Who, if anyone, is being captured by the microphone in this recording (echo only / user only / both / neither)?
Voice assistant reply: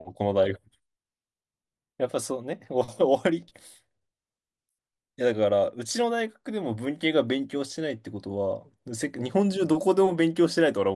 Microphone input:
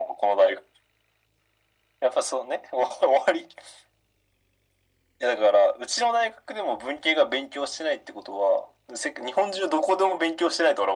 echo only